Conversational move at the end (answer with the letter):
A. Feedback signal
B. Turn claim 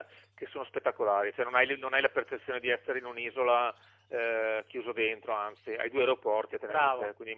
B